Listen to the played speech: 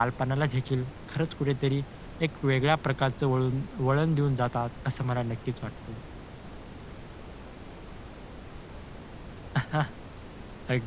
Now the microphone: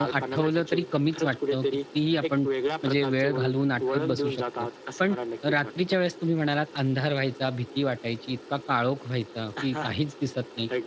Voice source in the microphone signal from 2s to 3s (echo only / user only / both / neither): both